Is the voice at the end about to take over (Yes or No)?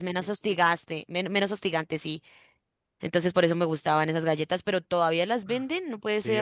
Yes